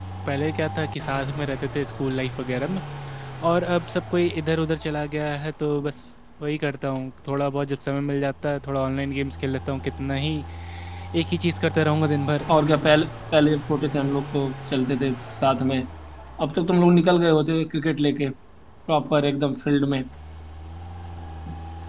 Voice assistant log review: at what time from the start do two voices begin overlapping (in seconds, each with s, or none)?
none